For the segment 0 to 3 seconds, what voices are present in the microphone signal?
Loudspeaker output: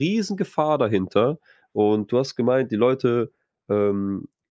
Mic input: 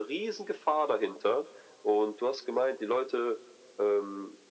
echo only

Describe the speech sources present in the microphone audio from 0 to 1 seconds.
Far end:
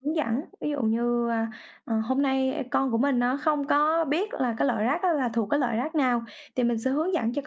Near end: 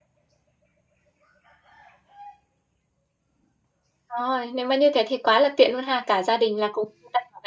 neither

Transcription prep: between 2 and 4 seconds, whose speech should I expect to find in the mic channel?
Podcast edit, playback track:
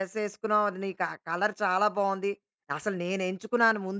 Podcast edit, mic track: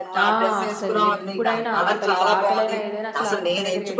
both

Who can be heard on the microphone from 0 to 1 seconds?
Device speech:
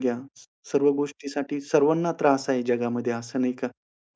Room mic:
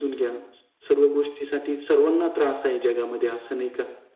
echo only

